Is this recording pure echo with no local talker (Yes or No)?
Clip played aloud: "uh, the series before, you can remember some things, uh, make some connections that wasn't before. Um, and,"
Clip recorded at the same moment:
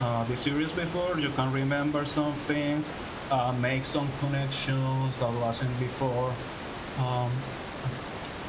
Yes